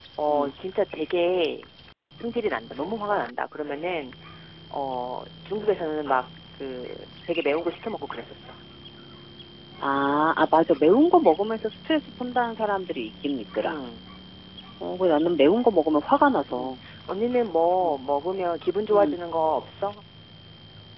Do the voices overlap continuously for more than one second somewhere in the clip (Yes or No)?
No